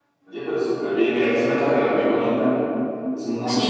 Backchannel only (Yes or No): No